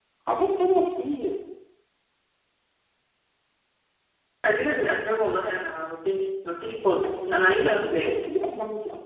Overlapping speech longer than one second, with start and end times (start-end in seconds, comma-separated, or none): 7.0-8.3